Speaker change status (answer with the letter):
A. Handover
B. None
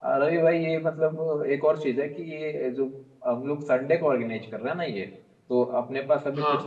B